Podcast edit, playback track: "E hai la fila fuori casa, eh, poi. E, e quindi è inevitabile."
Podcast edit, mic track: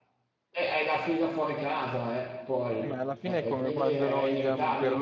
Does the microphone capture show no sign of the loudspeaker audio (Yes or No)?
No